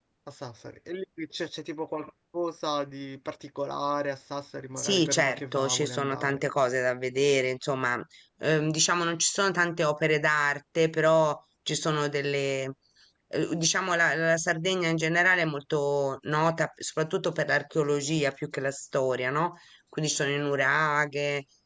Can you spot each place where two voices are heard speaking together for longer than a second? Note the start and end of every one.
4.8-6.4

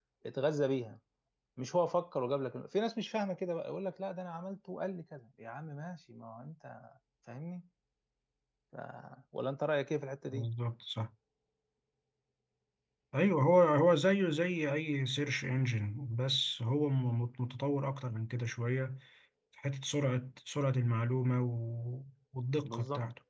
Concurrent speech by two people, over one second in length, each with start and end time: none

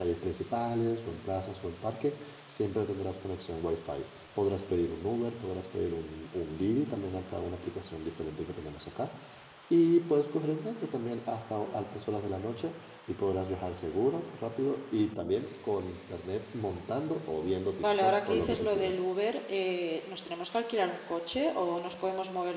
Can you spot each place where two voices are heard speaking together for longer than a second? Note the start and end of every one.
17.8-19.1

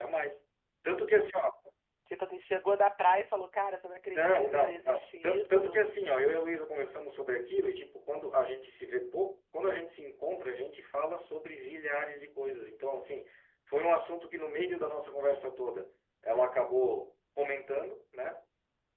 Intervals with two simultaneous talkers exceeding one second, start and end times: 4.1-5.8

